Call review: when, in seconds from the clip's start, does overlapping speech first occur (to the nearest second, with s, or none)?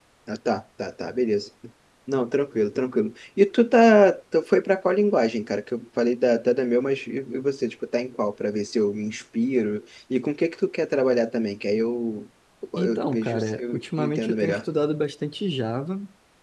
13 s